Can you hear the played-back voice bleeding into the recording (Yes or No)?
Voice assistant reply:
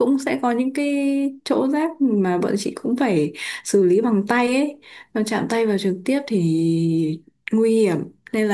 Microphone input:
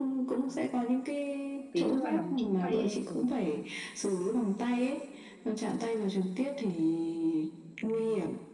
Yes